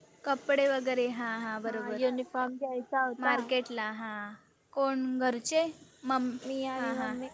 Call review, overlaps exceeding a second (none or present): none